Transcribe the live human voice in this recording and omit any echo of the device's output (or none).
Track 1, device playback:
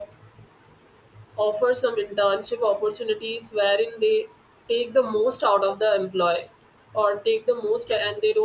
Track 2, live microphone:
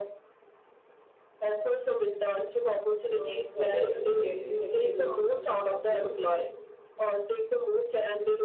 uh, sorry i didn't get you actually can you